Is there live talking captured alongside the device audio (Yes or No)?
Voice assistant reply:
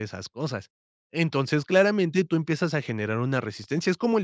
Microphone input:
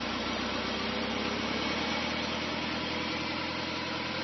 No